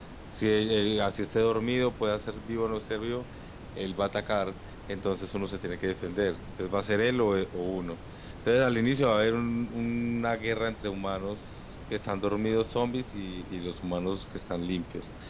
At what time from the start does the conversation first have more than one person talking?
none

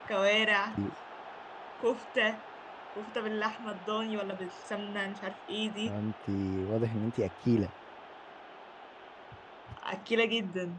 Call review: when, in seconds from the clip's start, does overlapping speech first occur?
none

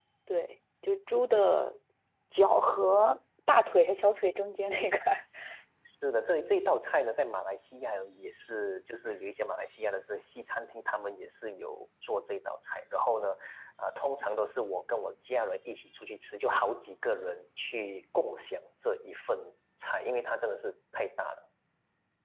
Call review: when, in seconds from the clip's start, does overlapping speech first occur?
none

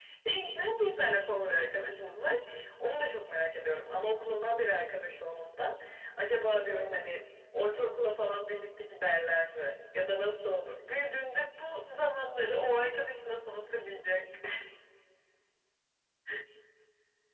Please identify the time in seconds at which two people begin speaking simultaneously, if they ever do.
none

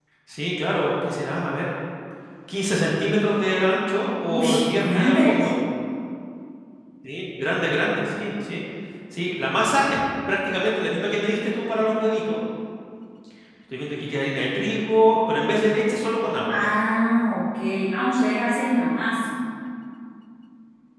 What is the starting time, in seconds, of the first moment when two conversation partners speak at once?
4.3 s

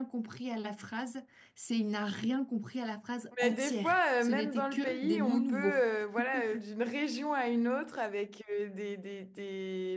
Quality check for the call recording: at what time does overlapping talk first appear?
3.4 s

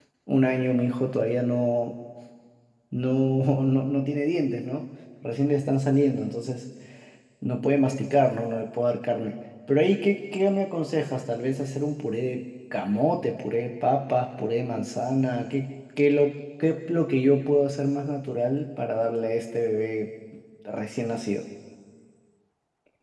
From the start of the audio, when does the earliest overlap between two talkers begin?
none

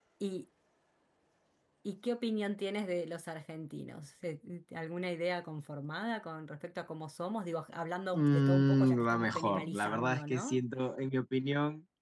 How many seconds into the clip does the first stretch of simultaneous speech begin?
8.1 s

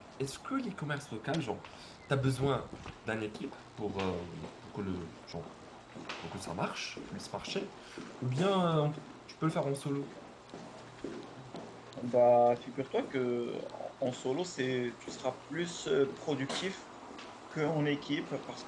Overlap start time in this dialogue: none

